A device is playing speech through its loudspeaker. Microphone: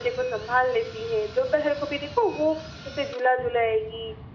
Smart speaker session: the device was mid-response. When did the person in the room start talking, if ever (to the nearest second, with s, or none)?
none